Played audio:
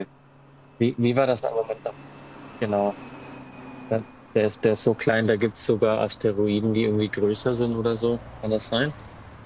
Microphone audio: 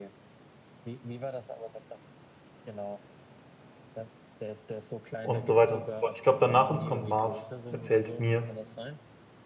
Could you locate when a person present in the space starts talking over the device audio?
5.2 s

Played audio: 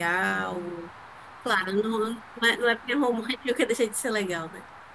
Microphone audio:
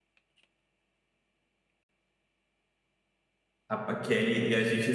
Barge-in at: 3.7 s

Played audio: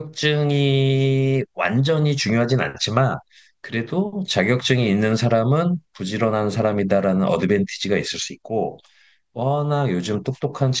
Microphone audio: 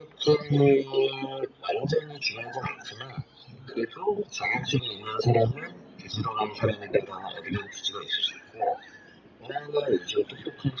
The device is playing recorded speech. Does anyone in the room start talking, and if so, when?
none

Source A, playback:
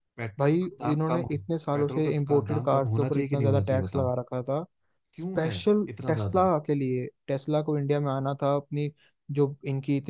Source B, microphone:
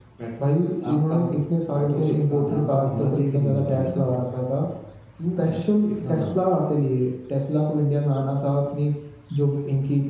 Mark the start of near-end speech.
none

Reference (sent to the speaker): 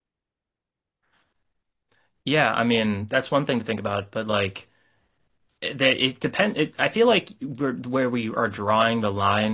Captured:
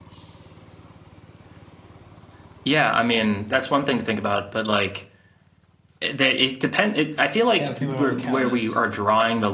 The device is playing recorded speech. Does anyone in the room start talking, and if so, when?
7.6 s

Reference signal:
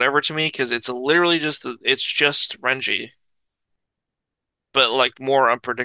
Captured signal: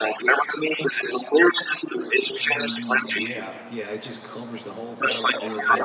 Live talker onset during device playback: 2.4 s

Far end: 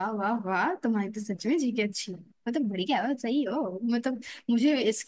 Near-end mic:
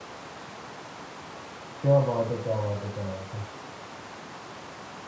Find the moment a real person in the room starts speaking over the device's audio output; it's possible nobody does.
1.8 s

